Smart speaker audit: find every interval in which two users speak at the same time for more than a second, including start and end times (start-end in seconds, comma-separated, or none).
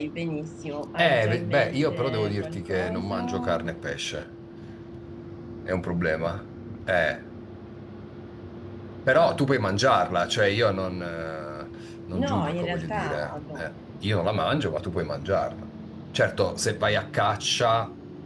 1.1-3.6, 12.2-13.6